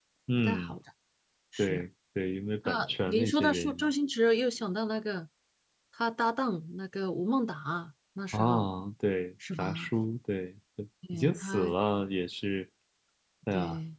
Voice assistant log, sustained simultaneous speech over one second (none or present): present